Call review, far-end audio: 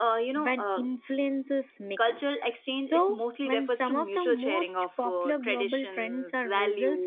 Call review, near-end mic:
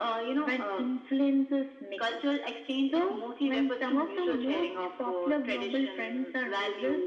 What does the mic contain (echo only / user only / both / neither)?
echo only